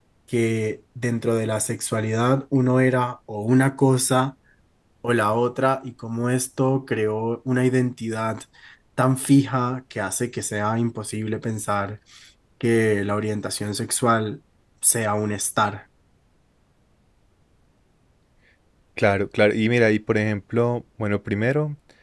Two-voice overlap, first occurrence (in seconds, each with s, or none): none